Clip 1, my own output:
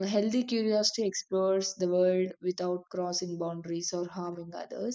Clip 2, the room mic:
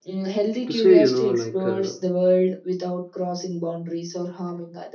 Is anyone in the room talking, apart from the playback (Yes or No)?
Yes